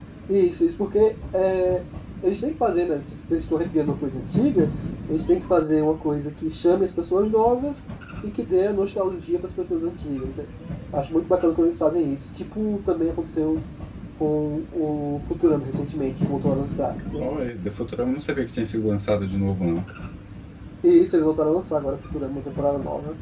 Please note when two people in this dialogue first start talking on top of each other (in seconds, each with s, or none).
none